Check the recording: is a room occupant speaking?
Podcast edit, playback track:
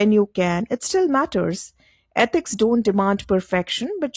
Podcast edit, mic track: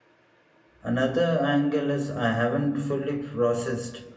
Yes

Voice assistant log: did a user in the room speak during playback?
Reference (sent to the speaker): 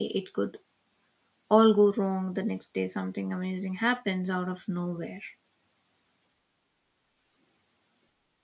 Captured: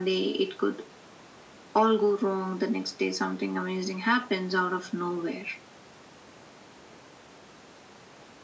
No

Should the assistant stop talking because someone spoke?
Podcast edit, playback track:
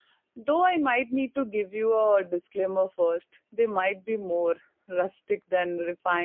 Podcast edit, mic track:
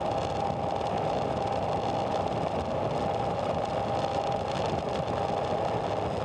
No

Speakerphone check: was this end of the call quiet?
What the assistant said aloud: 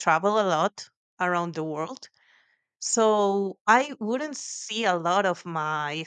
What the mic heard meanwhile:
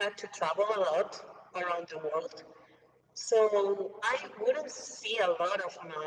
Yes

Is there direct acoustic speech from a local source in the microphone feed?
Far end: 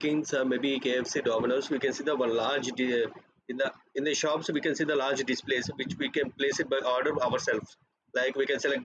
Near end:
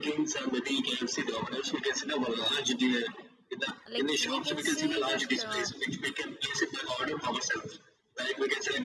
Yes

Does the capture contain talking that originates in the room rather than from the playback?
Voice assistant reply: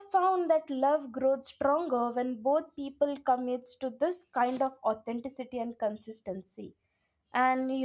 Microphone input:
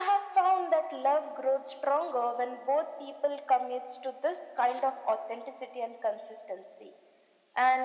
No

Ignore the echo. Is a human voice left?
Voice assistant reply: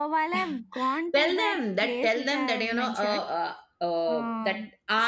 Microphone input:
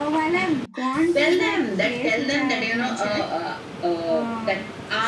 No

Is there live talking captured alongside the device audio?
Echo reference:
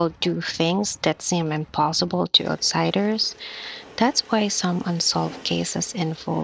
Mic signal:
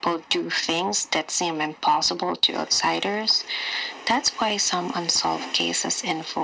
No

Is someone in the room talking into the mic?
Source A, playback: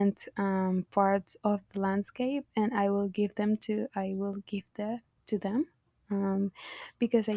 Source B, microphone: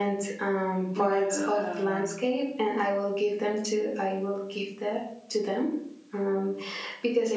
Yes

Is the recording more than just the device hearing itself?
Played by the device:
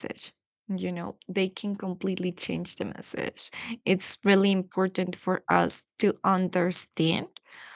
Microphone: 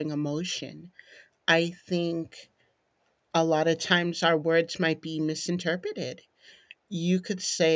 Yes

